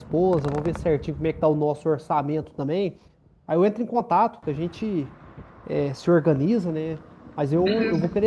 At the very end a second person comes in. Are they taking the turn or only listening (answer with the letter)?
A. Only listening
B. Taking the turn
A